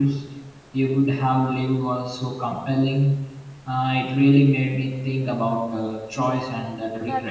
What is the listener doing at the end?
taking over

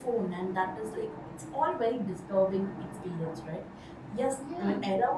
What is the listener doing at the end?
listening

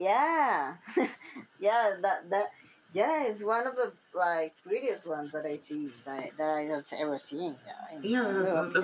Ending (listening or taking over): taking over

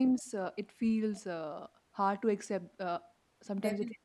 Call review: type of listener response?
taking over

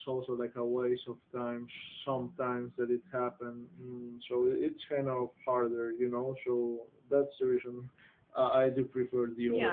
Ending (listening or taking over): taking over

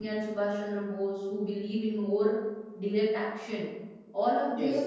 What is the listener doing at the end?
listening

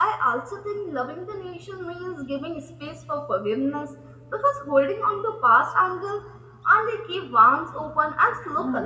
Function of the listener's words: taking over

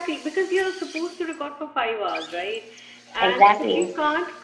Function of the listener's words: listening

